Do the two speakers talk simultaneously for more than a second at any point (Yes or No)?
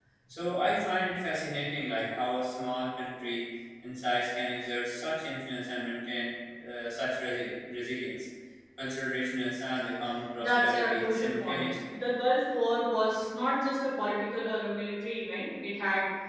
Yes